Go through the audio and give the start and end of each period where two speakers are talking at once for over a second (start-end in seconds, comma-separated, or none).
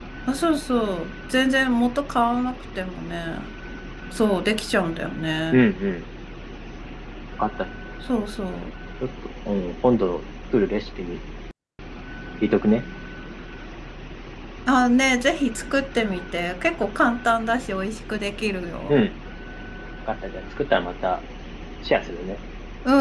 none